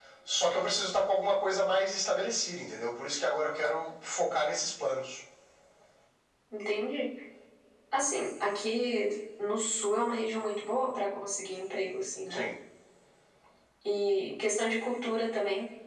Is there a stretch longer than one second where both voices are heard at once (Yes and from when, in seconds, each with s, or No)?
No